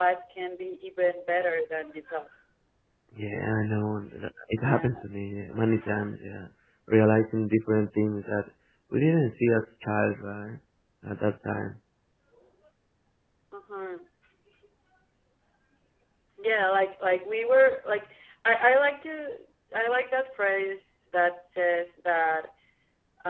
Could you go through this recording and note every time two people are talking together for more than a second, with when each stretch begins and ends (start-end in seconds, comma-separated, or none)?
none